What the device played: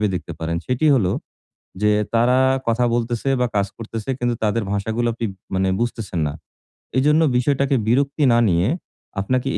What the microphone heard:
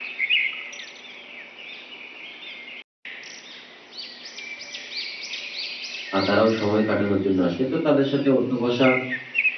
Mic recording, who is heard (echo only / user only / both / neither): user only